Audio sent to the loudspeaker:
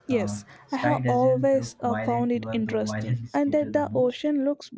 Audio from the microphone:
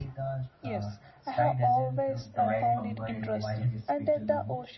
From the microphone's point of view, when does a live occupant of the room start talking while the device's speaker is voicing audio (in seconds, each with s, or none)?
2.2 s